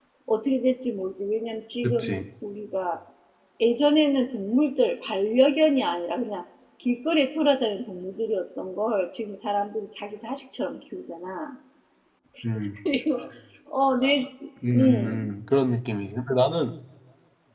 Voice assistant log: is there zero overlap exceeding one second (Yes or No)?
Yes